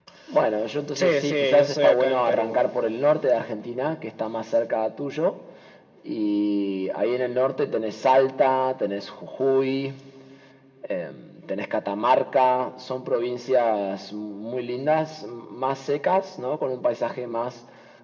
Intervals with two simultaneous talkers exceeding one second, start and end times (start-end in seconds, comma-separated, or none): 0.9-2.5